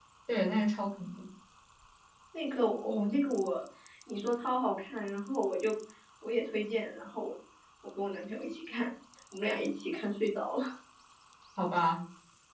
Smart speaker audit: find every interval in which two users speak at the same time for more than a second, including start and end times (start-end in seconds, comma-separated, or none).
none